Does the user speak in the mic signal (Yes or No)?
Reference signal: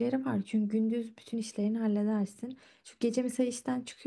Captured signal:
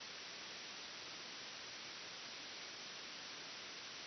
No